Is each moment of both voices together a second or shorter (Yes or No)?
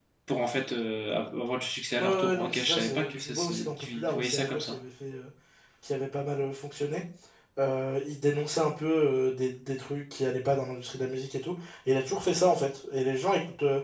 No